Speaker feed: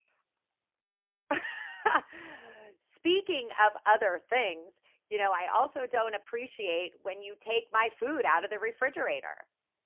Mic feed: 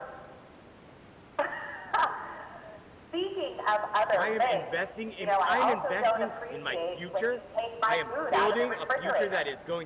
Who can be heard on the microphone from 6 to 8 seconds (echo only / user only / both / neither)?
both